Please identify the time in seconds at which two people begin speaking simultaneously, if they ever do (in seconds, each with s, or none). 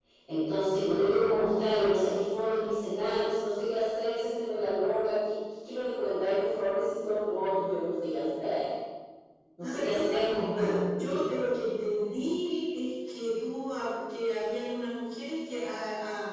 9.6 s